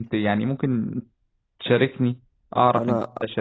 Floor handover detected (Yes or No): Yes